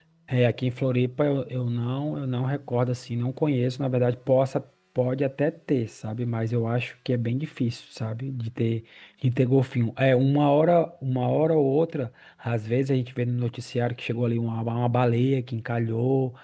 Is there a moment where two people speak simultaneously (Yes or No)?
No